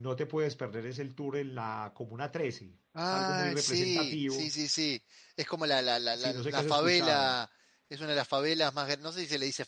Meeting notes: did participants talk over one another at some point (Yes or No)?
Yes